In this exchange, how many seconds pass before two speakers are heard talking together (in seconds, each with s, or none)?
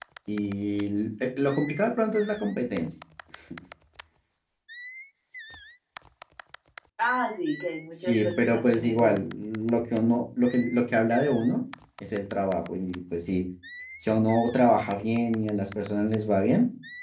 8.0 s